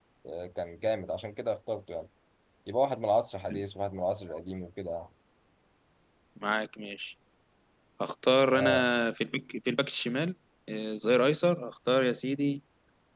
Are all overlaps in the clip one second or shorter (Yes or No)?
Yes